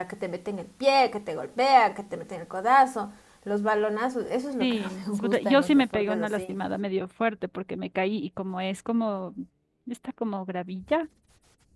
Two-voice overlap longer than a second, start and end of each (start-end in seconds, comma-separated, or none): 4.6-6.5